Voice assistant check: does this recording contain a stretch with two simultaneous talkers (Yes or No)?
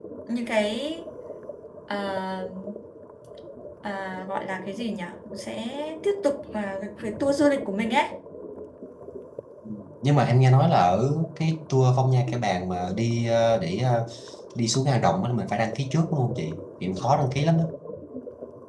No